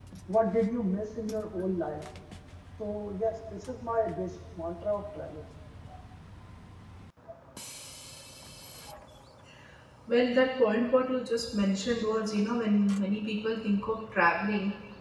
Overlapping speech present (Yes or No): No